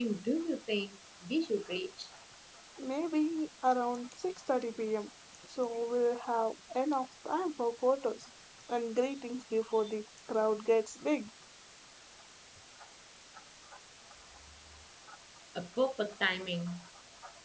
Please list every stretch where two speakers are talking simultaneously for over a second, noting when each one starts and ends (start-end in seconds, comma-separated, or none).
none